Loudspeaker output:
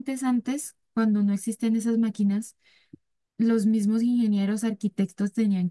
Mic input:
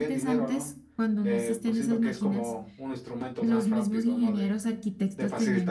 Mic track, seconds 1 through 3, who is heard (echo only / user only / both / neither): both